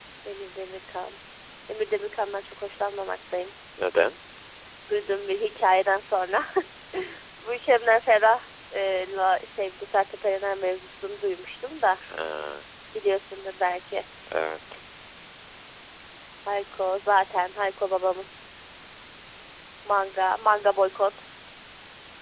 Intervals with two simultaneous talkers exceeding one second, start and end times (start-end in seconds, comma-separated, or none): none